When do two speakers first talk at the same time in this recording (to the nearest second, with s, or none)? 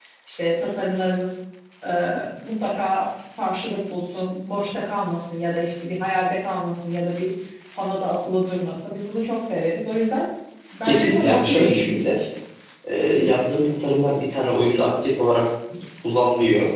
11 s